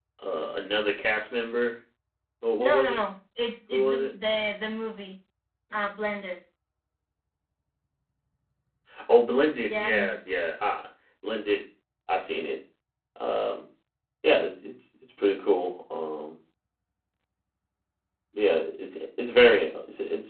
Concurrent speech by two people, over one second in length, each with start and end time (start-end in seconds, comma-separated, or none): none